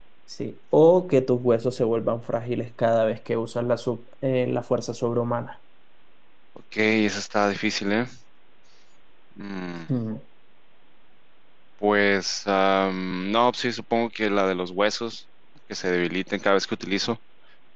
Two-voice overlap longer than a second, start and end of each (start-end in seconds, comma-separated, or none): none